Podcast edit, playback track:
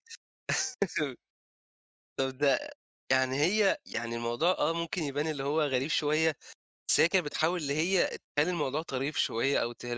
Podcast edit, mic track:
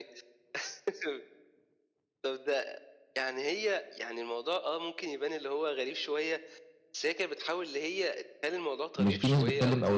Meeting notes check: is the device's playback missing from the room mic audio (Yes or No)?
No